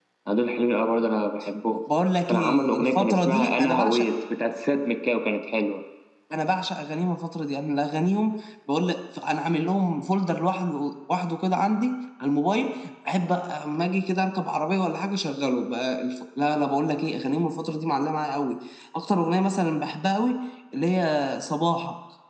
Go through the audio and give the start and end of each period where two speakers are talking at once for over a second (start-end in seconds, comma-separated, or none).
2.3-4.0